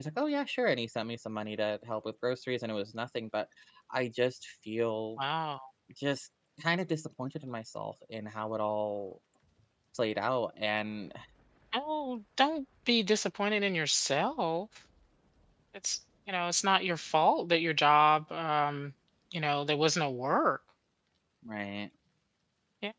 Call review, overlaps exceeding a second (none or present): none